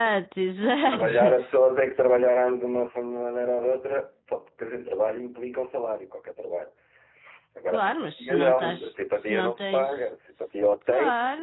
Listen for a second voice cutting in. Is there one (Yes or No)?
Yes